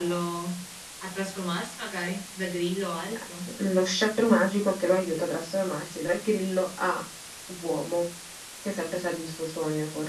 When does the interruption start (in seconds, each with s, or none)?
none